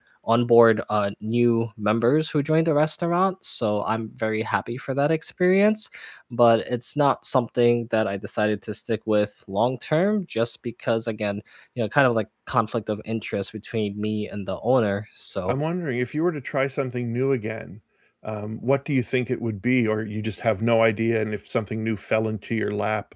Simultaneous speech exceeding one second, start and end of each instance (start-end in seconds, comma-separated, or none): none